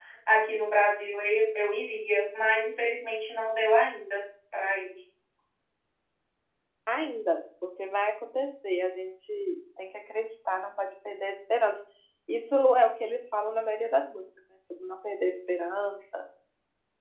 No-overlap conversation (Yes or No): Yes